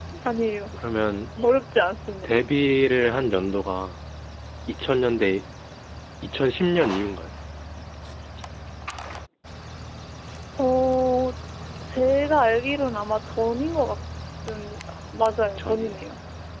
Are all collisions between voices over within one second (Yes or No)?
Yes